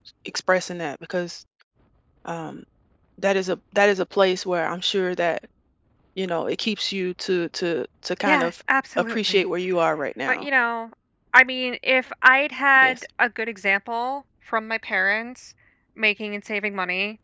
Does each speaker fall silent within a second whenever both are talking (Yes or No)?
Yes